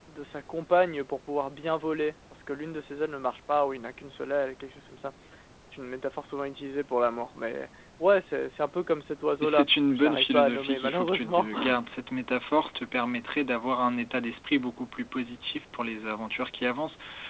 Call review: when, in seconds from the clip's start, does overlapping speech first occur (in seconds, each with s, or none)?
9.4 s